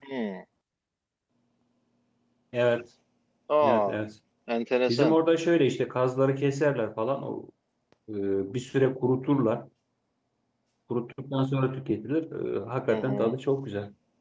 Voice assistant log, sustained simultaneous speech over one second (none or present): none